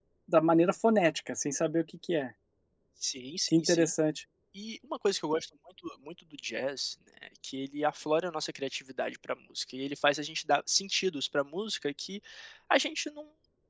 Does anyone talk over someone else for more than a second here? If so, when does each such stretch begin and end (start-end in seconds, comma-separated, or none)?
none